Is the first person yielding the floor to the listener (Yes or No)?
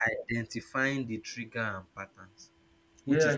Yes